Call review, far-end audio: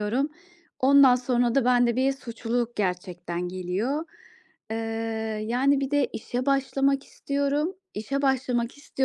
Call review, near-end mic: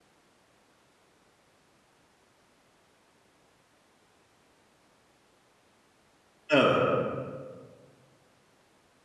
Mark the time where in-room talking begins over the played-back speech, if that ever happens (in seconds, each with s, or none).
6.5 s